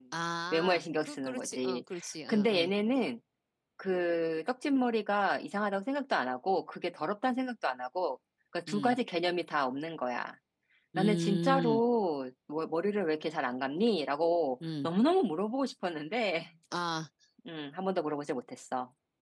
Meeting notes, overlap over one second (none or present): present